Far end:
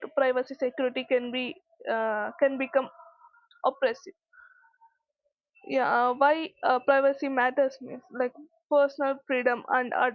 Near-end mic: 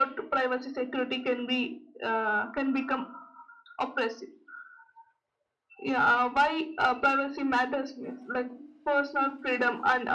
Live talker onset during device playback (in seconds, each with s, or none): none